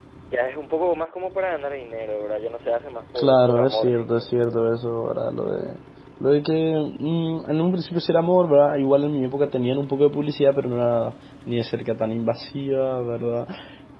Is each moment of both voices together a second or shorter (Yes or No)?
No